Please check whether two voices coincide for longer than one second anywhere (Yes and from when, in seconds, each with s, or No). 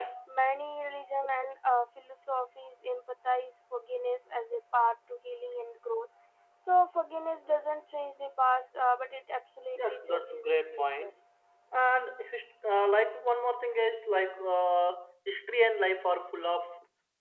Yes, from 9.8 s